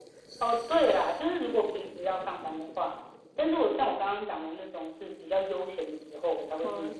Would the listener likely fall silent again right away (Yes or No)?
Yes